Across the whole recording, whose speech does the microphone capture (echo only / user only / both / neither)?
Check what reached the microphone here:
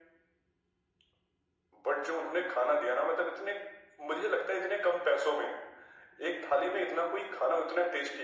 echo only